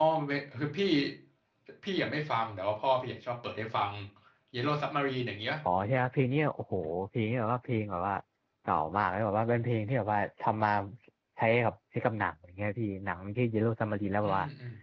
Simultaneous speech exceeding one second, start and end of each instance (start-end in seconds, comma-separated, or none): none